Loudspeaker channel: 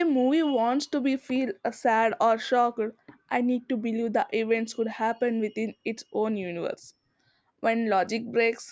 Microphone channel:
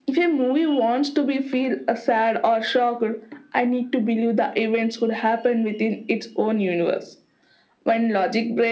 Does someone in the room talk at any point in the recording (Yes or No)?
No